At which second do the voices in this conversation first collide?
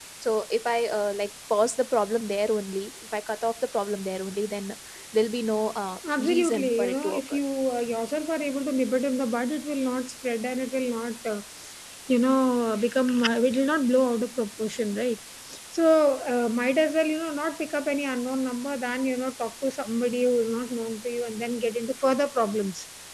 6.0 s

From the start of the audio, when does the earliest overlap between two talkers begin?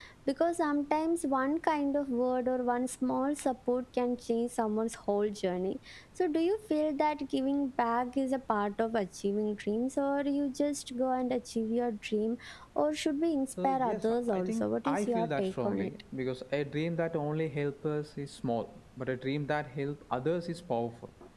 13.6 s

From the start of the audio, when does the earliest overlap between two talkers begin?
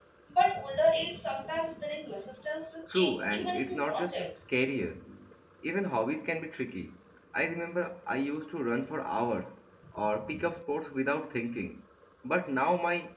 2.9 s

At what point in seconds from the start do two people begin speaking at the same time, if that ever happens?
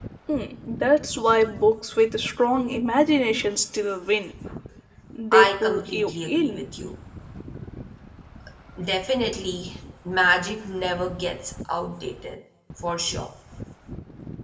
5.3 s

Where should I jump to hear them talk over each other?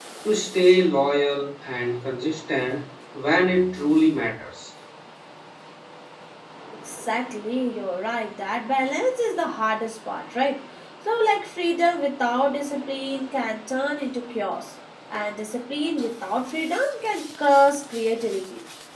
none

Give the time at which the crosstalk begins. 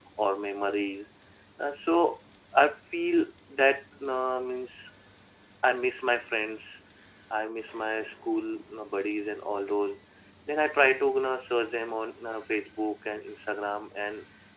none

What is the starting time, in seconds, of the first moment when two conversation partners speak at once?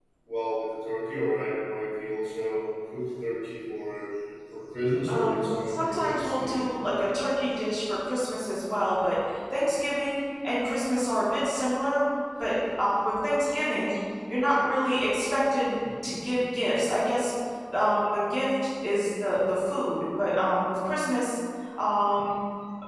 5.1 s

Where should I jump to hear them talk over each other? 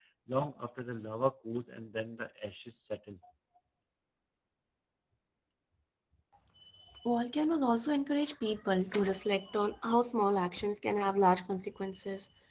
none

